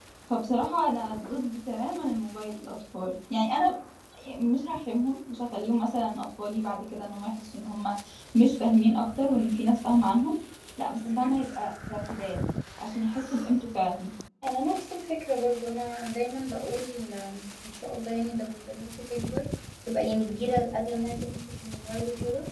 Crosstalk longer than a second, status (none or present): none